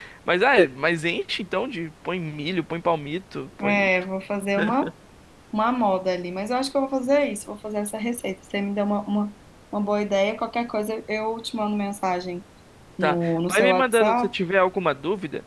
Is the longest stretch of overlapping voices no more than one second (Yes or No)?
No